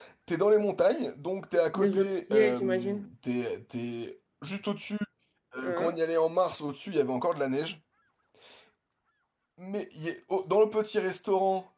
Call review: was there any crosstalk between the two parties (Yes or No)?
Yes